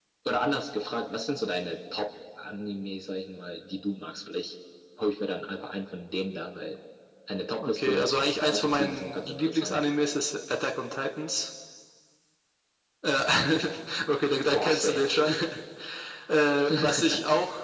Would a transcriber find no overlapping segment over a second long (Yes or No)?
No